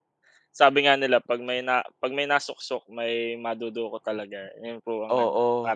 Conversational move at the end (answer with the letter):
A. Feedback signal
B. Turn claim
B